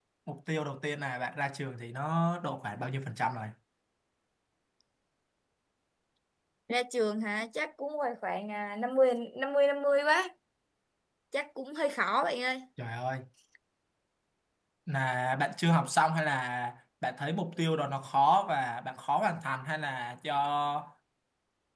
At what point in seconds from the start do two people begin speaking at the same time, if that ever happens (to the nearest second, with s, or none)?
none